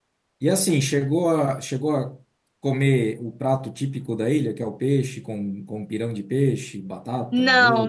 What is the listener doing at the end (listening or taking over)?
taking over